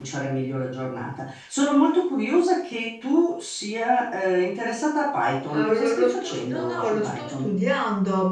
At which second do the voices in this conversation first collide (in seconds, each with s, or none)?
5.5 s